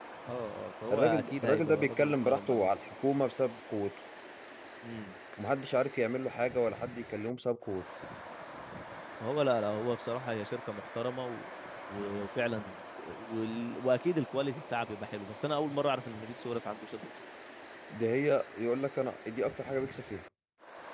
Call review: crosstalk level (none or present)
present